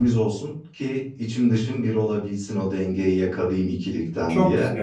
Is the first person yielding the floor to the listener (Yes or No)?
Yes